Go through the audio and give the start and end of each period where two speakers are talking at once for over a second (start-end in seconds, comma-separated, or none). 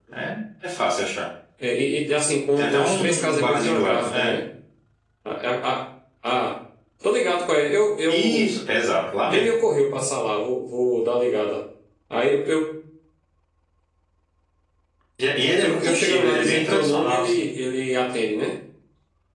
2.6-4.4, 15.6-17.5